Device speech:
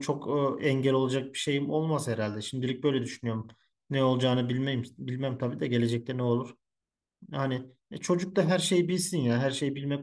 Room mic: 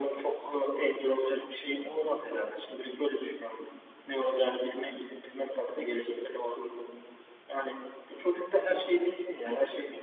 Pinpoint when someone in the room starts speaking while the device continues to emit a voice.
none

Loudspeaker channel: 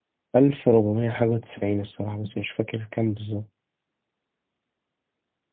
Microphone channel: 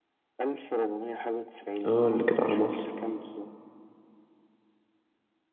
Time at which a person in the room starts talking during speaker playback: 2 s

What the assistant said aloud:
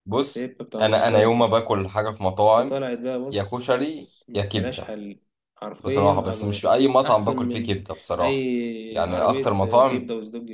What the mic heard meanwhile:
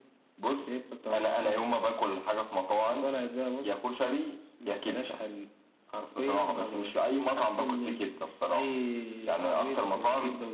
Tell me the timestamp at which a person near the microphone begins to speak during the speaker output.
none

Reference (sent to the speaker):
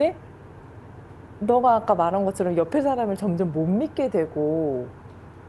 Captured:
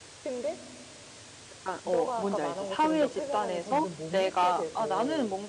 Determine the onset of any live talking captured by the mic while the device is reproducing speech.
2 s

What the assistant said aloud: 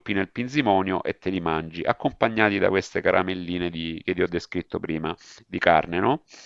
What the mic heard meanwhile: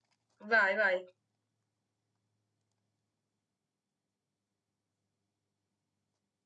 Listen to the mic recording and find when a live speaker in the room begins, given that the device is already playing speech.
1 s

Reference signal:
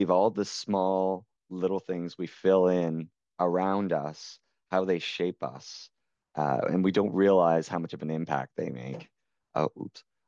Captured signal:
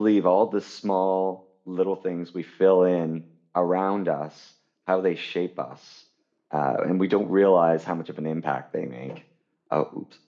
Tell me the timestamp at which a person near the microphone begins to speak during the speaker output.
none

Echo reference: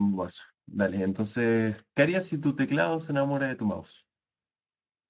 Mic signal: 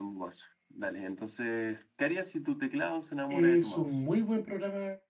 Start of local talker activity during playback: 3 s

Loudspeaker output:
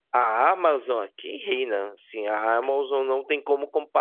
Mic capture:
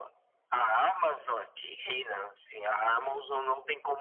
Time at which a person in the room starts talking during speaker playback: none

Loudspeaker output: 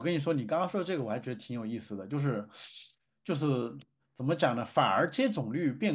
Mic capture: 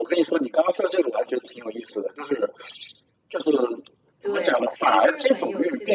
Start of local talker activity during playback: 4 s

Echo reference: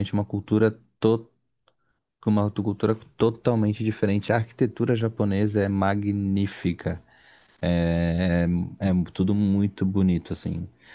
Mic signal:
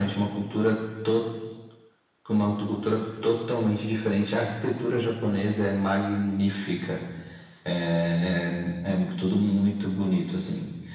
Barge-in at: none

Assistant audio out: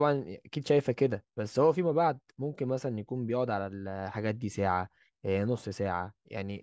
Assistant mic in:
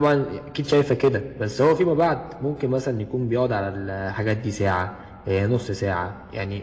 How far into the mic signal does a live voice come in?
none

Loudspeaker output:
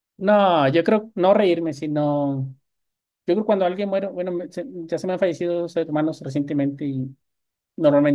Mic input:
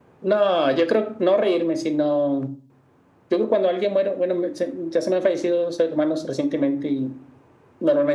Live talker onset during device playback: none

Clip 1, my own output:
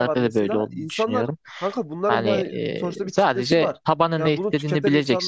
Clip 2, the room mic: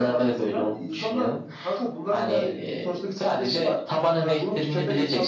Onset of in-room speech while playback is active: none

